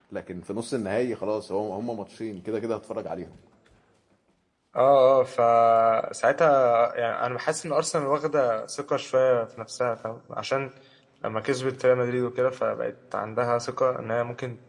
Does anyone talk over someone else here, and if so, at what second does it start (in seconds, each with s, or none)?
none